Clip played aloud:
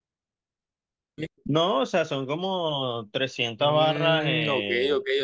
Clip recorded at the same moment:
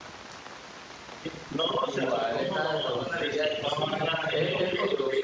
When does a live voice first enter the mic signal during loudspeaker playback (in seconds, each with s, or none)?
1.8 s